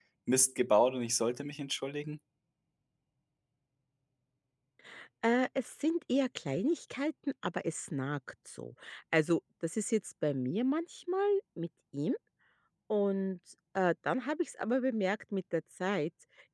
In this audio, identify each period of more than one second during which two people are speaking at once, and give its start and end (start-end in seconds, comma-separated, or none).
none